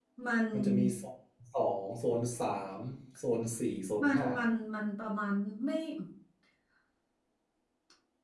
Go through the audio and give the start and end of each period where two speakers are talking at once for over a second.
none

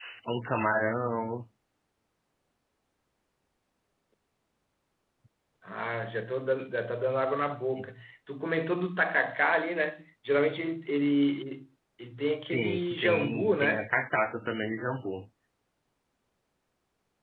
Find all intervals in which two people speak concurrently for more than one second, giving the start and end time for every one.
12.4-13.8

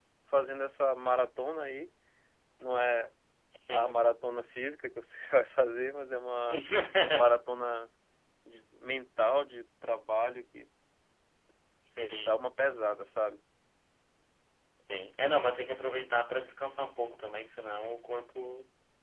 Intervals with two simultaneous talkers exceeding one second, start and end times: none

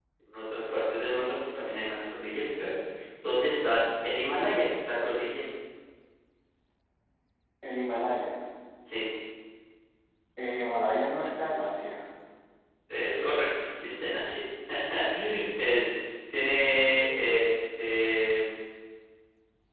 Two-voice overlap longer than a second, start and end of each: none

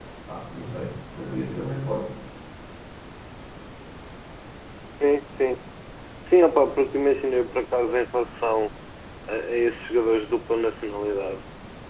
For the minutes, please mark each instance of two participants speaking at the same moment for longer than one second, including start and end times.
none

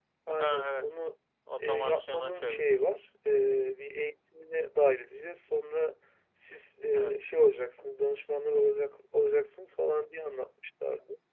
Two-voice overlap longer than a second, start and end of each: 1.6-3.0

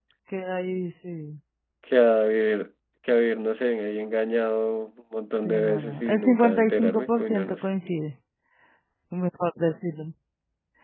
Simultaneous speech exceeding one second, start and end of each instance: 5.5-7.6

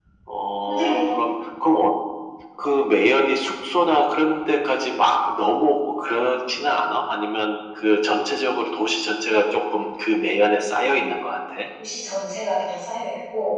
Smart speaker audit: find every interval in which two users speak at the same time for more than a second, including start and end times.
none

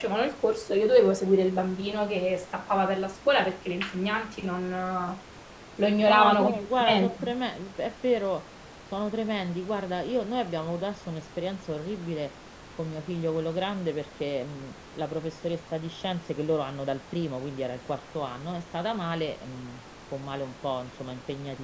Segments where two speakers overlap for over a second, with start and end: 6.0-7.2

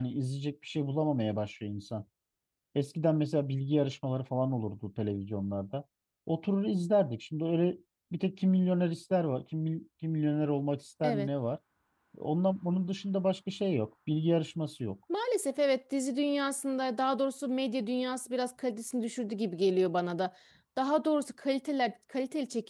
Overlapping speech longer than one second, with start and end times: none

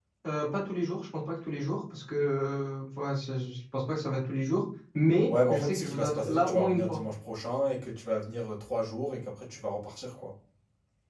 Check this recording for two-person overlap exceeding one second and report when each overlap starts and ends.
5.3-7.0

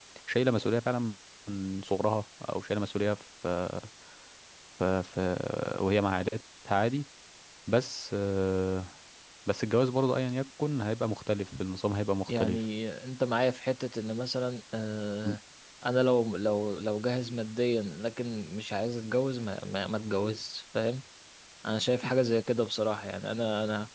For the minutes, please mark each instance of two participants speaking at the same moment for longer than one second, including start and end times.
none

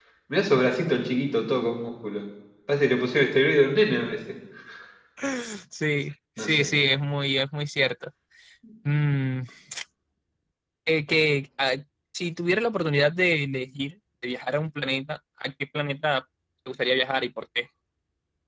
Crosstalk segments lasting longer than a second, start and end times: none

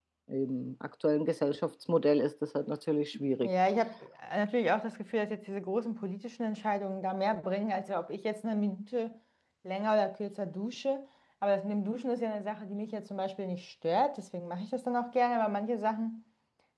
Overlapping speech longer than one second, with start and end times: none

